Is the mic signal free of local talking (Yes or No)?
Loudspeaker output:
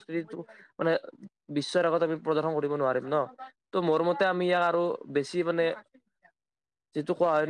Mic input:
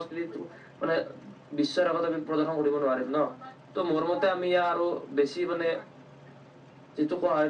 Yes